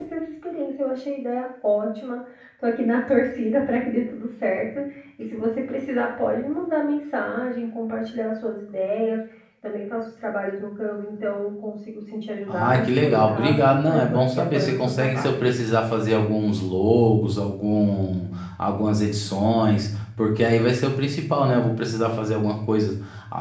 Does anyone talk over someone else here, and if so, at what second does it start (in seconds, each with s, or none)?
12.5 s